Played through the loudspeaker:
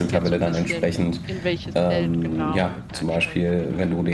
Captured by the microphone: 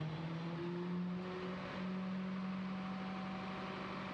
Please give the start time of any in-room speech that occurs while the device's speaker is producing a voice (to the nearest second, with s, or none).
none